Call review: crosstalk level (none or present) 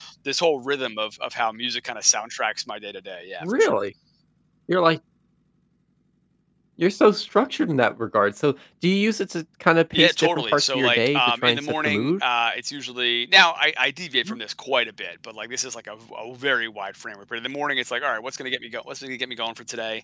present